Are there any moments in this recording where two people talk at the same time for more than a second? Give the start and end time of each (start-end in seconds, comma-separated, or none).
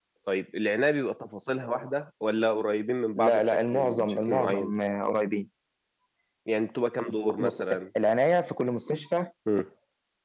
3.1-4.7